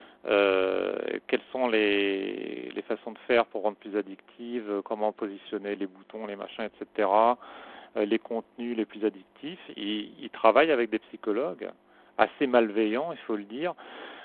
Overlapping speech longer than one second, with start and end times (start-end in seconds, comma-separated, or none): none